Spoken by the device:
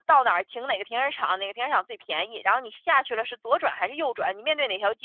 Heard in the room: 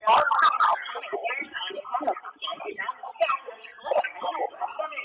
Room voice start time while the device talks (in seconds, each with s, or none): none